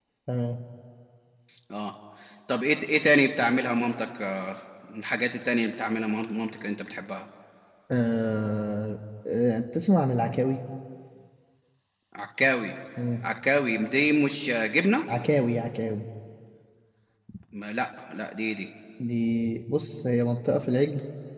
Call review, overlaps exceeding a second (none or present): none